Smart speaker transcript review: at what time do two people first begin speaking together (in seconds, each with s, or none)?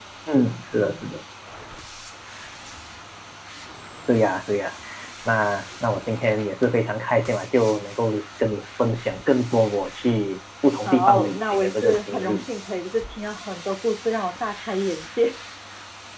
10.8 s